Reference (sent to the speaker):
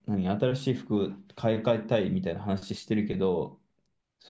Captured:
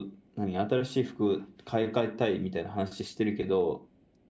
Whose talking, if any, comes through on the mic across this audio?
echo only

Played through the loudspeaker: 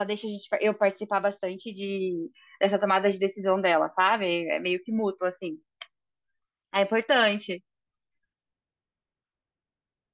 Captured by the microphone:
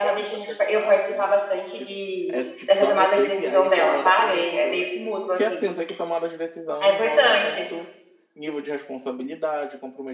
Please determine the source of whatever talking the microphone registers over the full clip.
both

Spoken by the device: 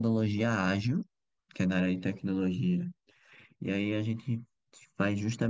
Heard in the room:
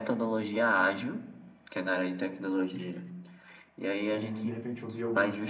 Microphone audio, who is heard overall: both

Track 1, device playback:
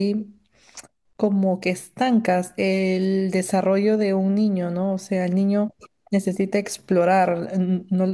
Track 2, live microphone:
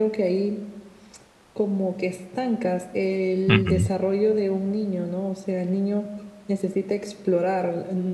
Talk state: both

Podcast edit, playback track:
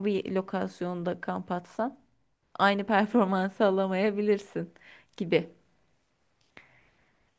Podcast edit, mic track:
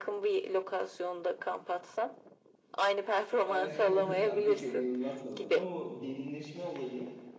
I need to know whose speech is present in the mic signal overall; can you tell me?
both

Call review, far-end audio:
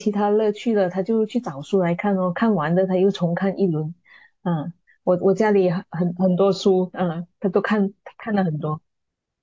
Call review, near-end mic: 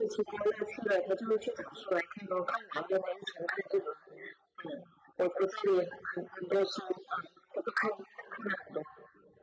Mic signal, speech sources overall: echo only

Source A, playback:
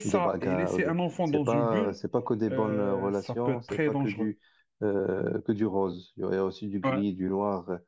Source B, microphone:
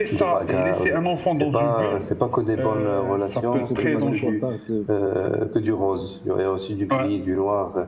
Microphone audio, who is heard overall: both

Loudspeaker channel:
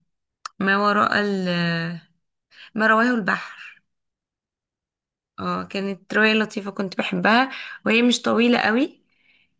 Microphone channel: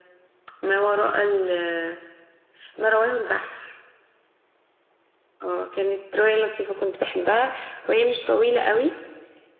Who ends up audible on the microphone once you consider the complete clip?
echo only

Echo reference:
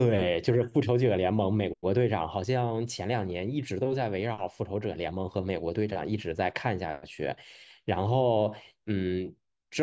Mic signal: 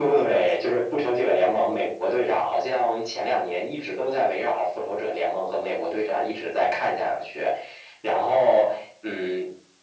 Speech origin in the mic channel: echo only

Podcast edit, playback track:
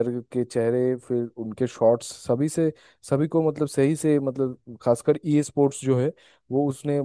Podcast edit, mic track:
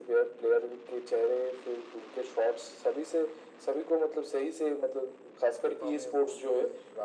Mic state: both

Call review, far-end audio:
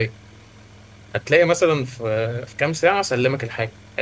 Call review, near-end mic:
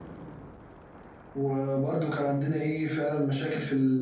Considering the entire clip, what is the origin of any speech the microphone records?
user only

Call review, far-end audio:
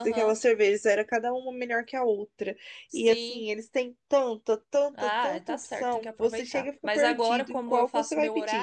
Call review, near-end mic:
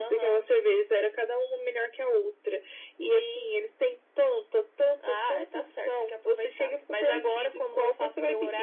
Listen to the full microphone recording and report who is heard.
echo only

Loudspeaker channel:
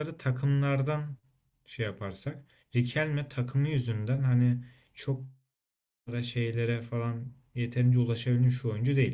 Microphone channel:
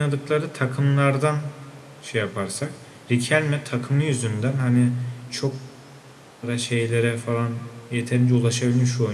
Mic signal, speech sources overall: echo only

